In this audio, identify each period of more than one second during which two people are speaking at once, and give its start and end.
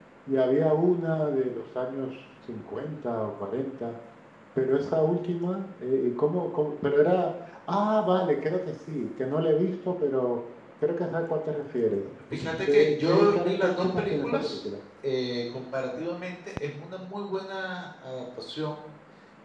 12.6-14.6

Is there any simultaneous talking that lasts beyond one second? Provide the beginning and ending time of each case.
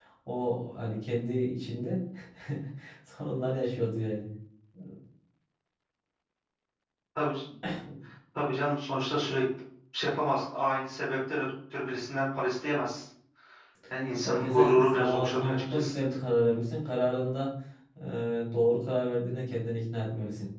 14.2-15.9

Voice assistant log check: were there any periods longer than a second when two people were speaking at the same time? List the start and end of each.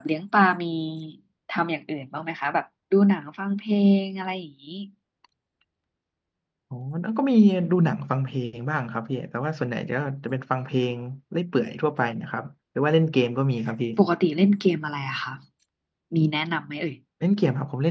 none

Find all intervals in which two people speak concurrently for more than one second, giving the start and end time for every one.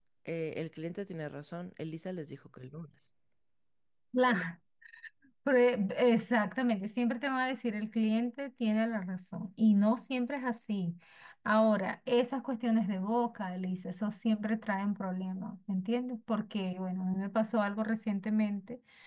none

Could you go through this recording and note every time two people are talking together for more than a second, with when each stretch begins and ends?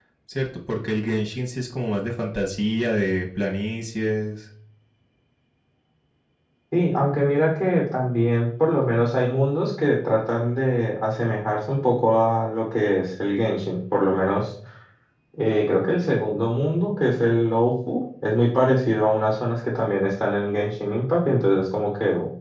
none

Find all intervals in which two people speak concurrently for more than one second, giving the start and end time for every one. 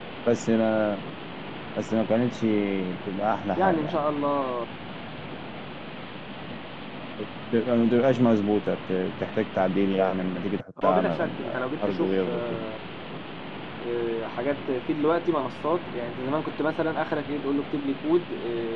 10.8-12.6

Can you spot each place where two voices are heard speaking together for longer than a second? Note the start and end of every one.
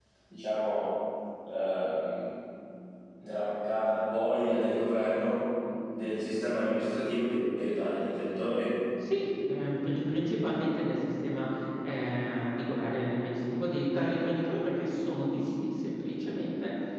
none

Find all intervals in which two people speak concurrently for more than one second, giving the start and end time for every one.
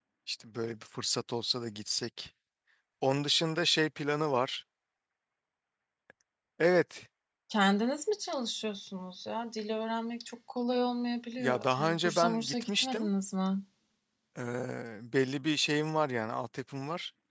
11.4-13.1

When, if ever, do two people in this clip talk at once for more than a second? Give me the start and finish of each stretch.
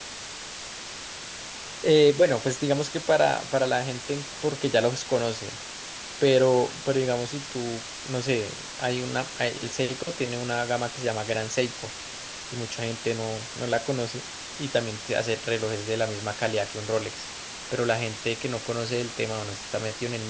none

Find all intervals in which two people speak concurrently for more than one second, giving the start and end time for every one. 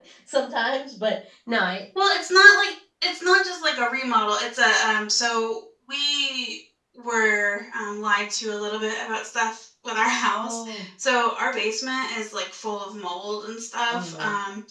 none

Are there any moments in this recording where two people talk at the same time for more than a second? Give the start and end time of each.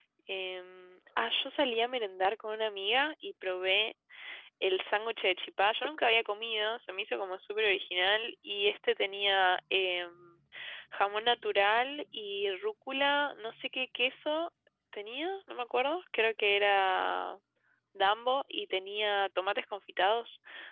none

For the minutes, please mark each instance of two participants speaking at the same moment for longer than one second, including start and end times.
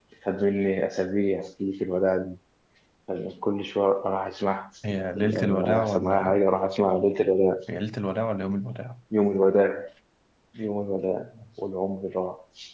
5.2-6.4

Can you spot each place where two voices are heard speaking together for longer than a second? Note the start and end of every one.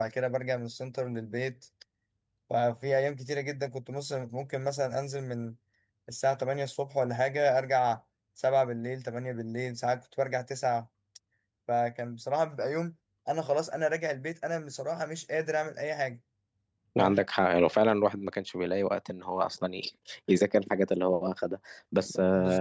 none

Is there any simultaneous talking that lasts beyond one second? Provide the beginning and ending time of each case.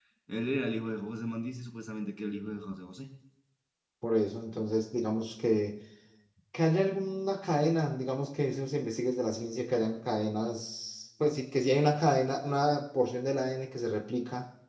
none

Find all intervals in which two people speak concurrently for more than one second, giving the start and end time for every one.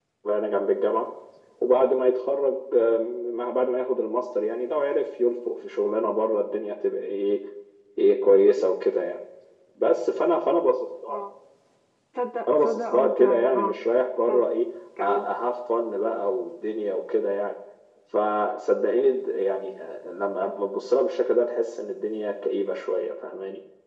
12.5-13.7

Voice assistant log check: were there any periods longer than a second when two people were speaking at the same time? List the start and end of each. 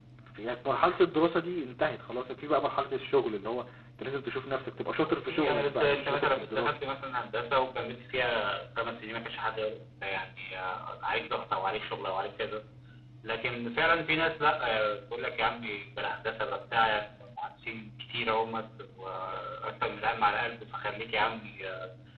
5.3-6.8

